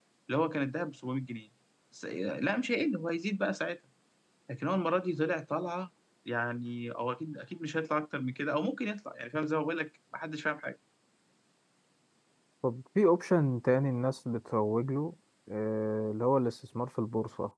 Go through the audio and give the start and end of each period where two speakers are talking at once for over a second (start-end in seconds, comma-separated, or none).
none